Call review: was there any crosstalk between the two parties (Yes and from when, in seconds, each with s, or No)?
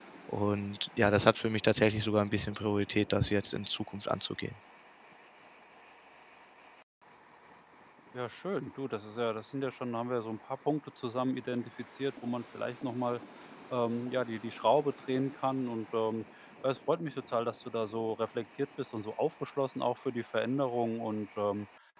No